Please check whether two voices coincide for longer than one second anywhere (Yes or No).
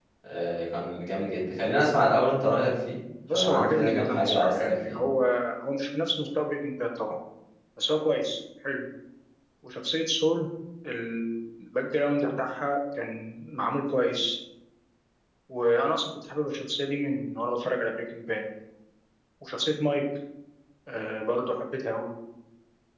Yes